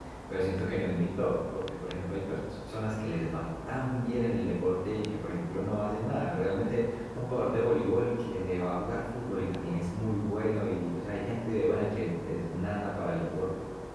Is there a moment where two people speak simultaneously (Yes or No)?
No